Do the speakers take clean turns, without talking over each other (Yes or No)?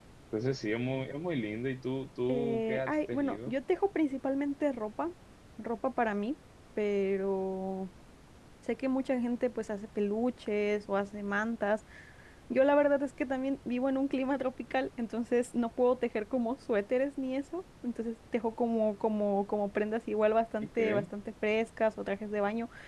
No